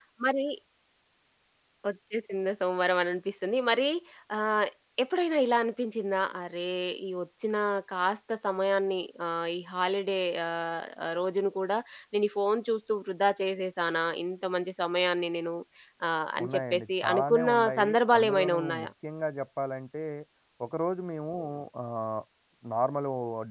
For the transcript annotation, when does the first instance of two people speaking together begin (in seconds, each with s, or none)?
16.4 s